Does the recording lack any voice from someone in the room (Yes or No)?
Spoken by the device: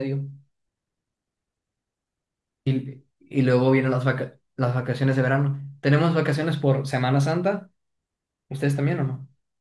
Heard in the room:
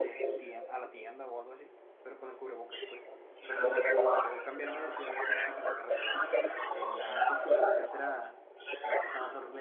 No